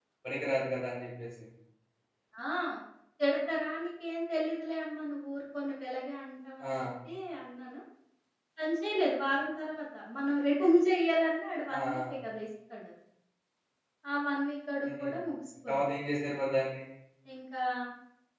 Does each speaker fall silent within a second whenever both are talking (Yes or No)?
Yes